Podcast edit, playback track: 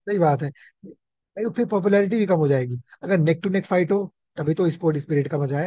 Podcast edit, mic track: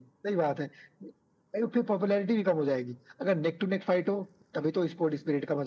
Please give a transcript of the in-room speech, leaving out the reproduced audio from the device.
none

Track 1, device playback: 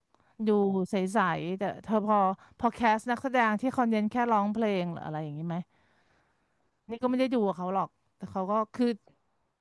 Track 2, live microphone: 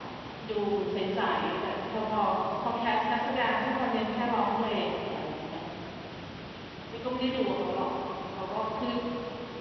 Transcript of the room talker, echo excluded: none

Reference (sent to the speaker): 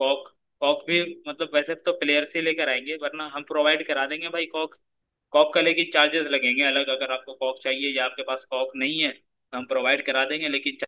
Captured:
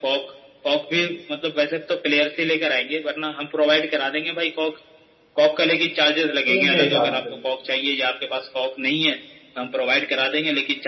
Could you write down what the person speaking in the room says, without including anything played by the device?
टीम के हिसाब से

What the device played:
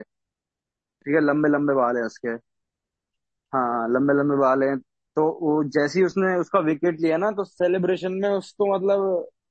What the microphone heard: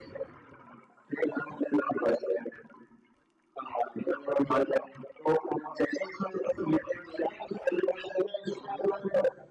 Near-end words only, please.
none

